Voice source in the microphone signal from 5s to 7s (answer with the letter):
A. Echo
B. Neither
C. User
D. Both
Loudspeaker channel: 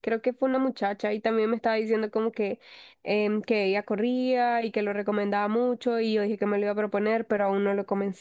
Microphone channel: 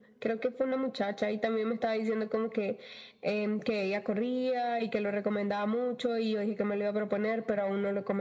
A